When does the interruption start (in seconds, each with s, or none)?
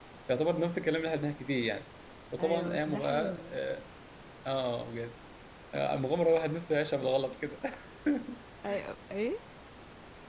2.4 s